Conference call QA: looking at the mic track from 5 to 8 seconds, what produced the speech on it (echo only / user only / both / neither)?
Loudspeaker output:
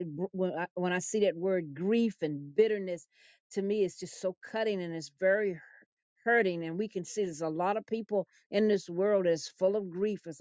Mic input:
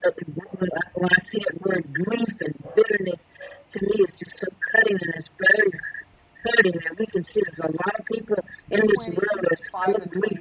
echo only